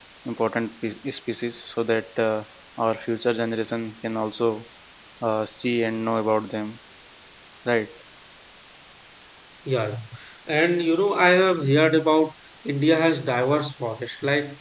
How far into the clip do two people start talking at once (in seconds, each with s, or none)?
none